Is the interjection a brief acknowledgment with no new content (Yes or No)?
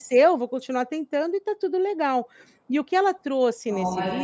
Yes